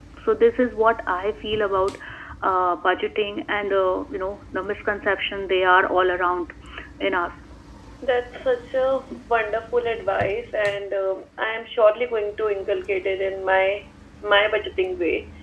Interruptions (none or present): none